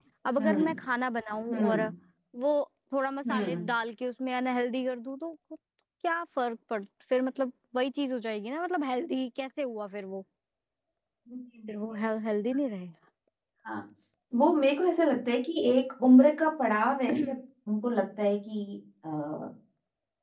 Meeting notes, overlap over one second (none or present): none